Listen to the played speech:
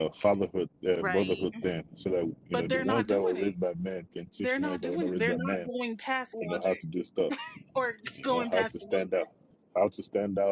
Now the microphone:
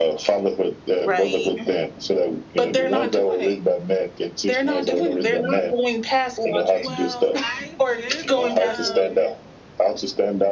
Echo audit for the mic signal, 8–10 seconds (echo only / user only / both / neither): both